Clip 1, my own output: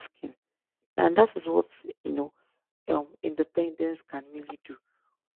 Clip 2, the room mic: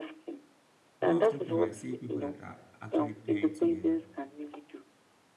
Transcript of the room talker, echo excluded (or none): more often time i see people that are actually pairing together